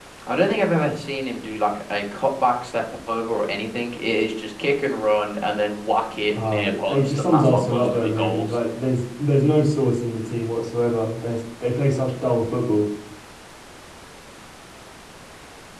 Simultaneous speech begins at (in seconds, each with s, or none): 6.3 s